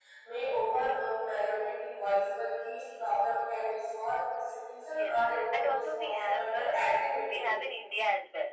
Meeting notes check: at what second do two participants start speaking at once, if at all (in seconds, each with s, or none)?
4.9 s